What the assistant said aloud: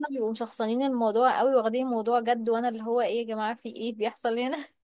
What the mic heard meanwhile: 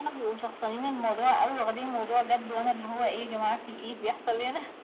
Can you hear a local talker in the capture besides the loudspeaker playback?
No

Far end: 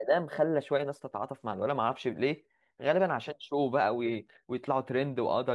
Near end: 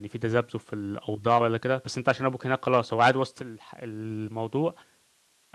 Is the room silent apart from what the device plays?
No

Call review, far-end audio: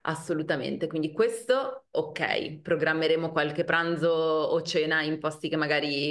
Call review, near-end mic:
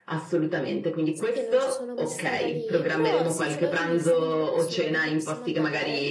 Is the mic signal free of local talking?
No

